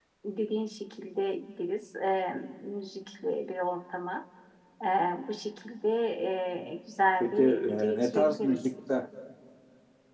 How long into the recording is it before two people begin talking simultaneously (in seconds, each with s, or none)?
7.2 s